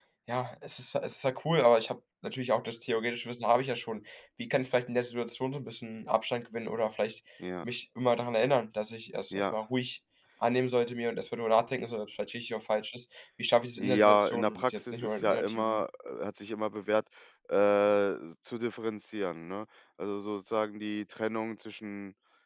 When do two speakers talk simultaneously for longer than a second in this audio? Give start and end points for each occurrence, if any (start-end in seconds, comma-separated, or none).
13.8-15.8